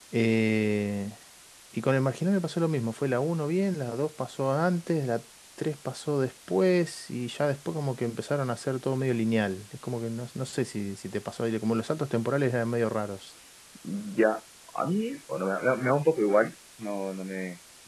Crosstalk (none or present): none